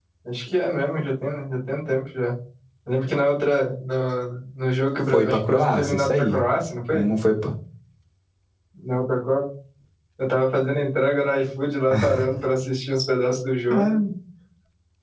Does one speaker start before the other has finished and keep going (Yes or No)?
Yes